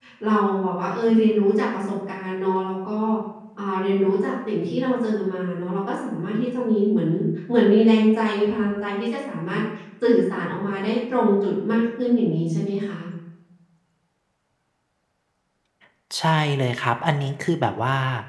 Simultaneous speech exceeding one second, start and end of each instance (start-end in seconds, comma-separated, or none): none